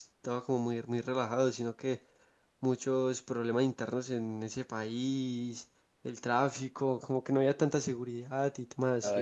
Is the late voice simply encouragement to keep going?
No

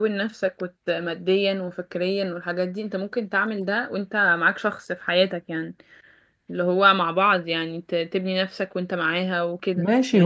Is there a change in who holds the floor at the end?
Yes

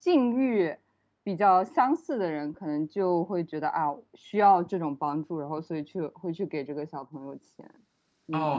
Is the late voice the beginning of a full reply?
Yes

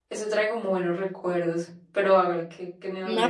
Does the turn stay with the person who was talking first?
No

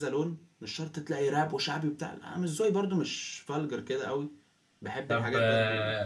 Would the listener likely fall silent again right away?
No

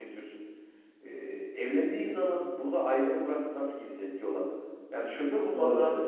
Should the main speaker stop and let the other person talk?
No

